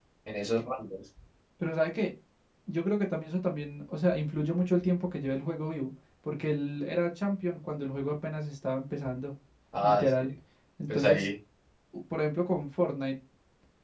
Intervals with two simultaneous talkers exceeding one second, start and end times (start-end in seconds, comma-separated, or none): none